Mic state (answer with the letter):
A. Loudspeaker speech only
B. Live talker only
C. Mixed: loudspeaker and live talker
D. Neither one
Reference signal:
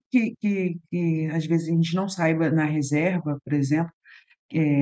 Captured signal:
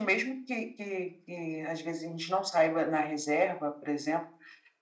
A